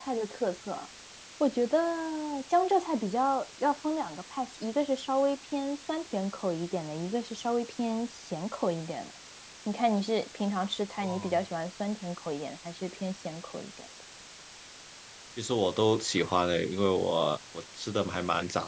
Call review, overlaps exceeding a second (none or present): none